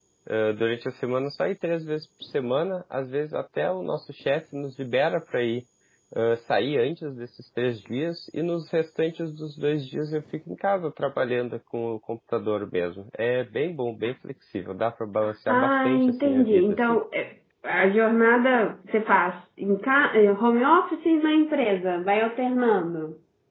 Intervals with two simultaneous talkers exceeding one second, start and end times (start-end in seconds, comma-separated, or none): 15.5-16.8